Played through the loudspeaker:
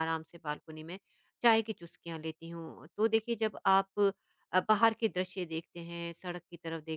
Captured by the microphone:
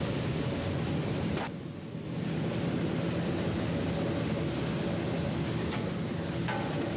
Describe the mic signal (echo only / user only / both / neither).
neither